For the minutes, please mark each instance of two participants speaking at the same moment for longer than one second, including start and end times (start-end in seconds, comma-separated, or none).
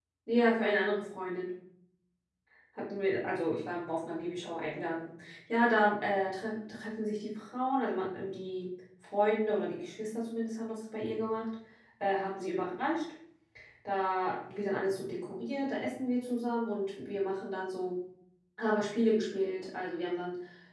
none